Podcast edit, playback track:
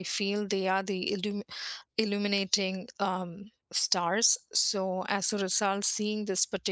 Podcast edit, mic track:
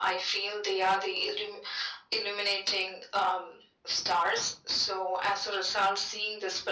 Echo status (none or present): present